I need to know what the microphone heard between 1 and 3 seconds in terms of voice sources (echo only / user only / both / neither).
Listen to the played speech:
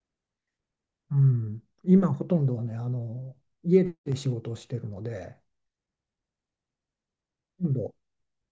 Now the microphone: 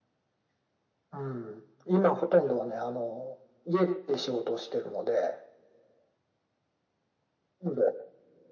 echo only